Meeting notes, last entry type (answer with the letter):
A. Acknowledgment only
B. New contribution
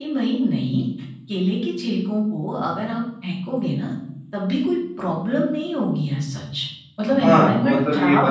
B